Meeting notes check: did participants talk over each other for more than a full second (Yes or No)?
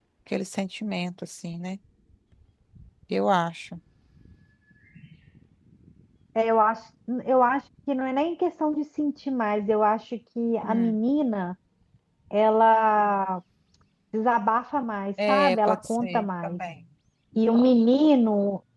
Yes